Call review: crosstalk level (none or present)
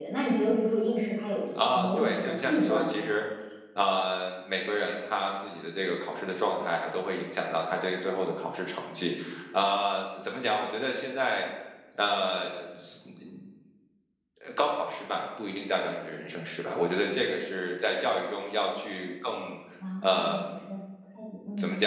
present